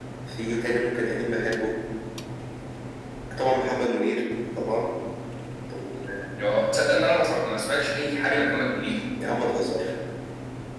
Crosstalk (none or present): none